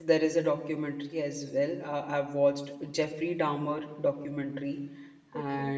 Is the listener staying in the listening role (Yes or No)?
Yes